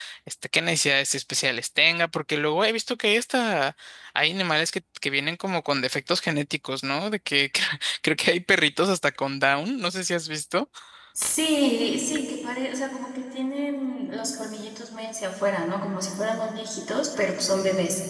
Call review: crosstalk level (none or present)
none